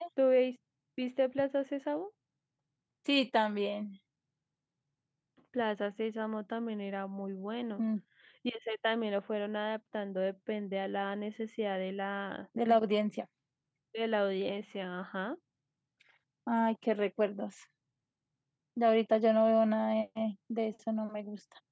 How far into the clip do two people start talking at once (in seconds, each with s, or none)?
none